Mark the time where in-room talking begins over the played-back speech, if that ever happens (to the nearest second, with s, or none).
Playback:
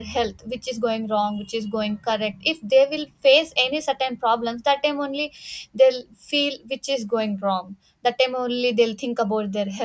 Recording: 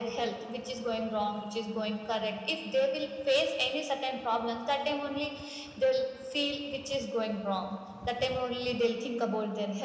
none